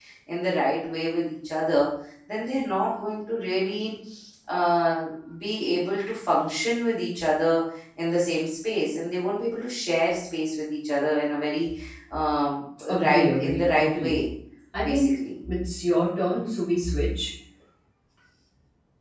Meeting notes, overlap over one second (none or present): present